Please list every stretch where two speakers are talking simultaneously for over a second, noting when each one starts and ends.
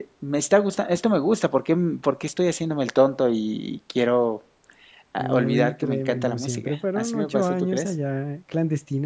5.2-7.9

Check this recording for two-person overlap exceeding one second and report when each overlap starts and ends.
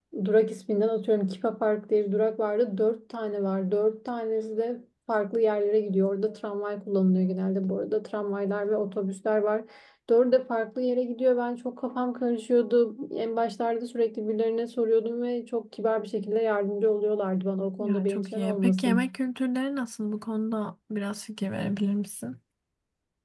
17.8-19.1

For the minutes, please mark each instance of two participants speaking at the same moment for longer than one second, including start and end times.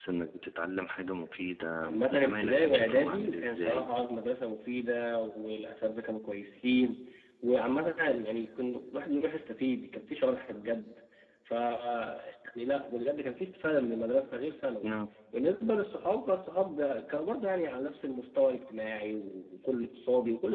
1.8-3.9

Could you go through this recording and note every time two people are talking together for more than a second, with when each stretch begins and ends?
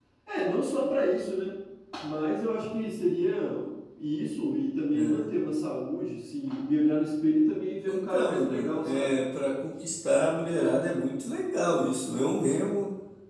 7.9-9.1

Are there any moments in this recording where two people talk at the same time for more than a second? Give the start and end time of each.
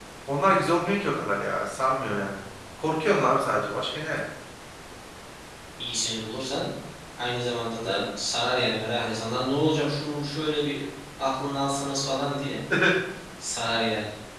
none

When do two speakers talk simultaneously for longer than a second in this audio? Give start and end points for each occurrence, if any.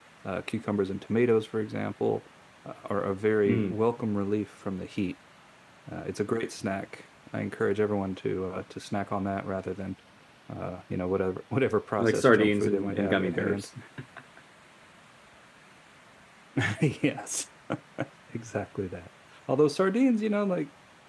12.0-13.7

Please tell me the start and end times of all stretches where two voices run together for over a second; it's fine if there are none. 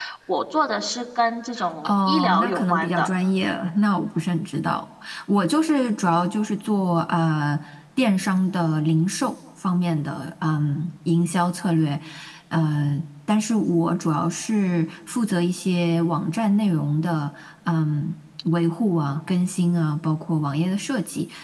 1.9-3.1

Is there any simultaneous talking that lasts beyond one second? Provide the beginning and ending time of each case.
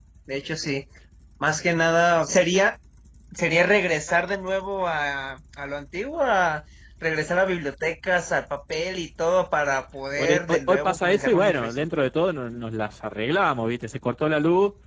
10.2-12.1

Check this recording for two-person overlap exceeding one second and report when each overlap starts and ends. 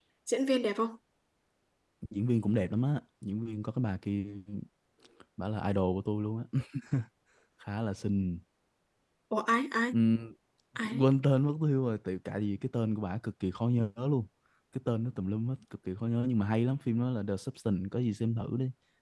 none

